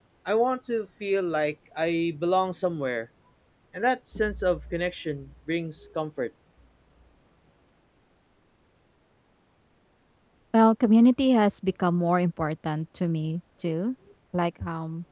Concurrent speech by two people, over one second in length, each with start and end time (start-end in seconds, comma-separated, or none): none